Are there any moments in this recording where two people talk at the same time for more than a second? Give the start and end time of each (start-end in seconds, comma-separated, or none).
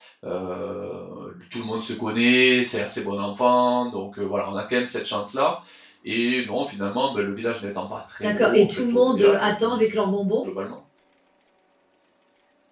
8.2-9.9